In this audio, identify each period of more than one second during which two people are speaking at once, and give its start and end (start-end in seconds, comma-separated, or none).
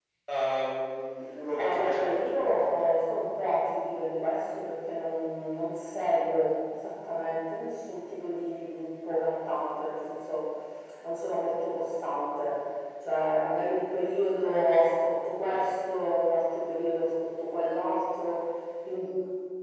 1.6-2.9